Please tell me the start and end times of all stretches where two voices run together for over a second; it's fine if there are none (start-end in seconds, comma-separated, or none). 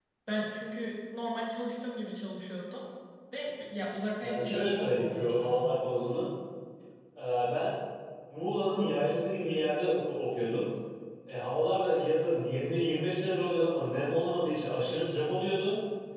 4.2-5.6